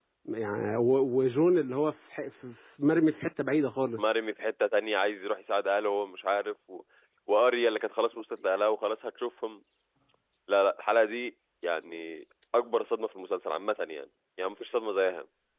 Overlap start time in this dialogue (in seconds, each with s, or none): none